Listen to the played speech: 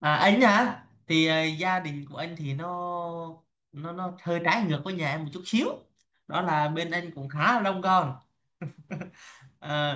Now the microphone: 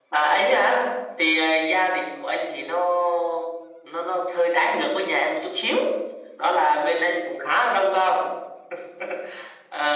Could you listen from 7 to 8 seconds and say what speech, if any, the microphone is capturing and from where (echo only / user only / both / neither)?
echo only